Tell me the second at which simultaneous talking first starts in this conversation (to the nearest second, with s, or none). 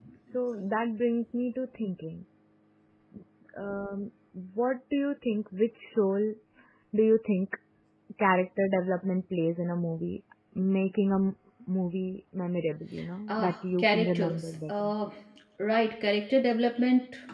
13 s